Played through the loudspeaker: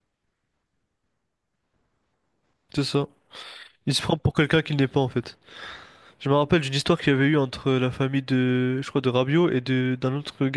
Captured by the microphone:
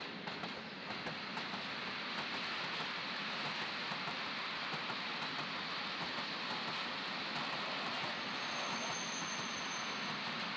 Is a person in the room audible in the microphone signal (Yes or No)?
No